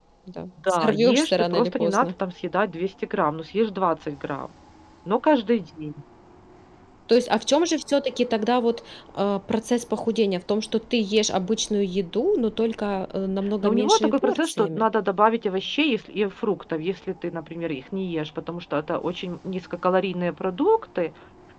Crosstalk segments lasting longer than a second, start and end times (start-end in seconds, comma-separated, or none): 0.7-2.1, 13.6-14.9